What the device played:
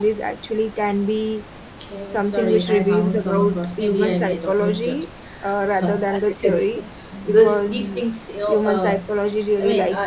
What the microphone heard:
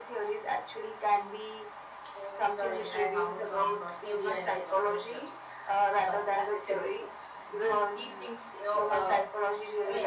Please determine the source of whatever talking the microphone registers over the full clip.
echo only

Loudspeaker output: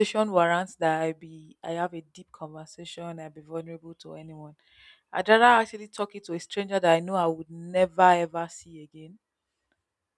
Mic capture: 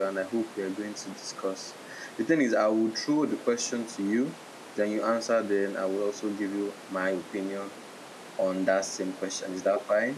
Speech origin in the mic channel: user only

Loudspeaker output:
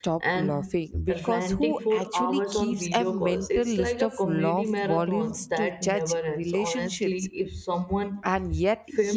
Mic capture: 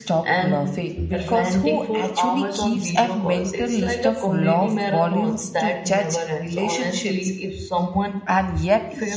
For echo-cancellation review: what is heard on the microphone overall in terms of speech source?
echo only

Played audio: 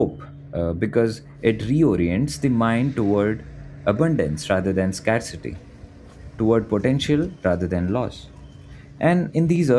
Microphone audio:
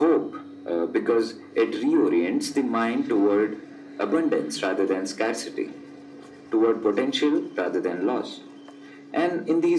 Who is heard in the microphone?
echo only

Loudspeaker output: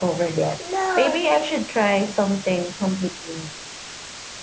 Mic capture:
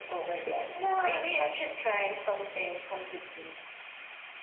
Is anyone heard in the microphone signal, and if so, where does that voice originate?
echo only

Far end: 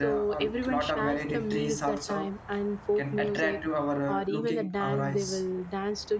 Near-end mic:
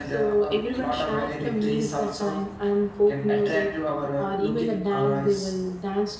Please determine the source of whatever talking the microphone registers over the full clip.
echo only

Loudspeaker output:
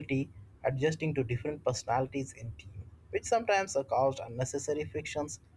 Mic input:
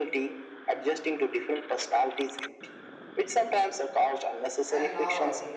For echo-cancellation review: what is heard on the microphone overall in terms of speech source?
both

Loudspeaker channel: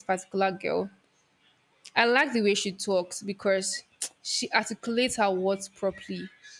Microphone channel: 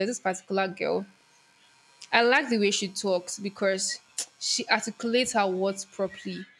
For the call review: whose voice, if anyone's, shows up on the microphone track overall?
echo only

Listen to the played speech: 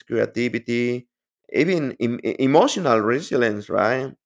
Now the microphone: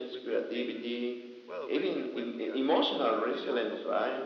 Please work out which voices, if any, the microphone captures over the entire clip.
both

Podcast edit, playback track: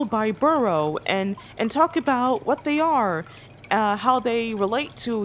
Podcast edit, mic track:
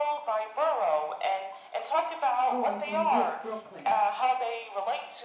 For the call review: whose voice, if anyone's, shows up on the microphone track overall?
both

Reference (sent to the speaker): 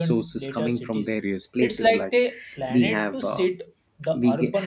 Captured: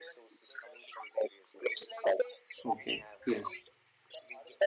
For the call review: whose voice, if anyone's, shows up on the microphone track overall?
both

